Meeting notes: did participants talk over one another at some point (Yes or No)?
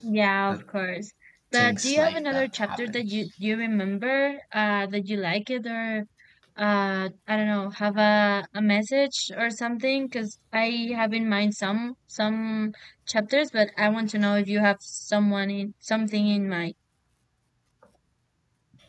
Yes